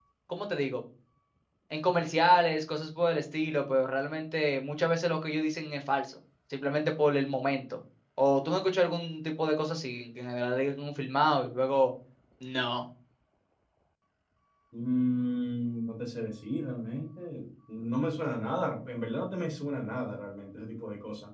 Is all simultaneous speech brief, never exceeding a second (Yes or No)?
Yes